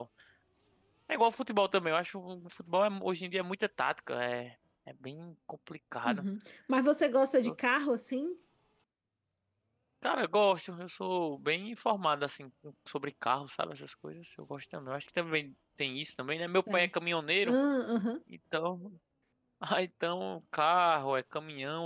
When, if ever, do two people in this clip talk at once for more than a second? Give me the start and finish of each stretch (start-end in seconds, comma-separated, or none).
none